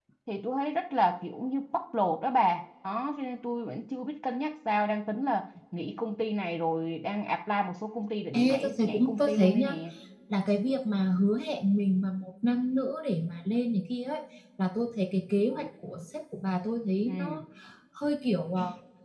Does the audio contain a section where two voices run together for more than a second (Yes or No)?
Yes